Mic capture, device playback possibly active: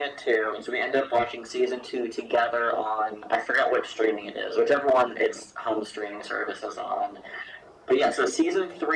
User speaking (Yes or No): No